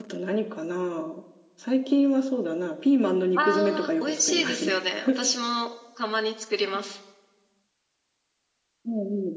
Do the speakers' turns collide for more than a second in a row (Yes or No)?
Yes